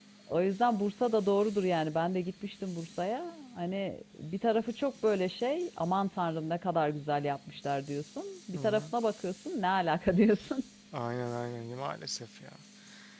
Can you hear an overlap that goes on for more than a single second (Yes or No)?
No